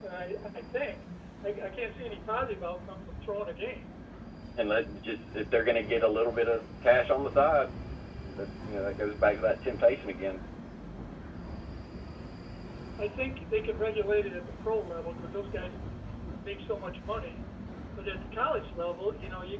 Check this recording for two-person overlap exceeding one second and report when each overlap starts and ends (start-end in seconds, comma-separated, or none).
none